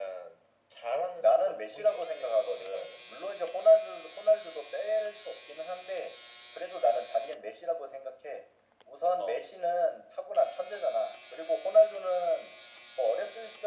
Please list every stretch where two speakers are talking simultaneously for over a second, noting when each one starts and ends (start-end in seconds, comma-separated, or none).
1.2-2.9